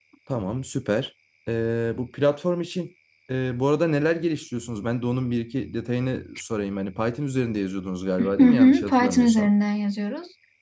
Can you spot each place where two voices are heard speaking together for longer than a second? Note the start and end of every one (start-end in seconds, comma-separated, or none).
8.2-9.5